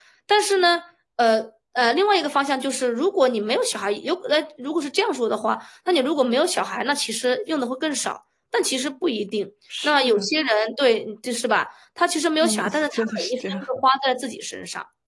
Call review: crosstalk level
present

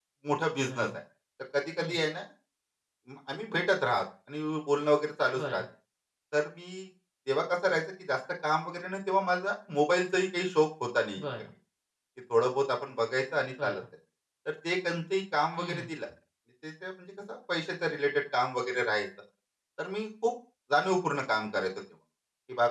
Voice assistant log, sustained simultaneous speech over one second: none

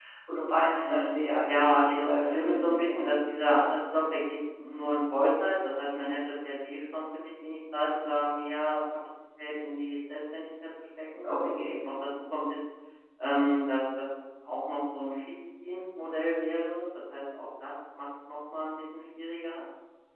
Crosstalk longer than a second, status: present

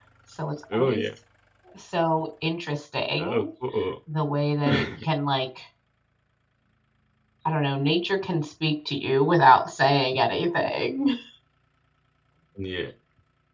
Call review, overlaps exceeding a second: none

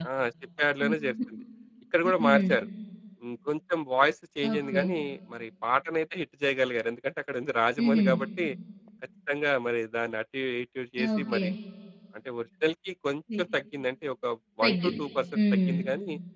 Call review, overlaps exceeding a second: none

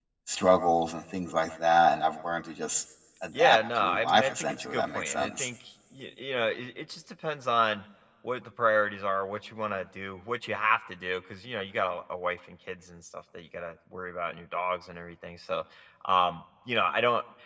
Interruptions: present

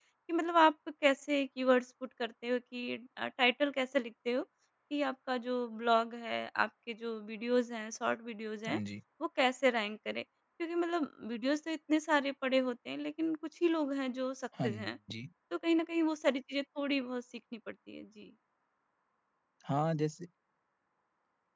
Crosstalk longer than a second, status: none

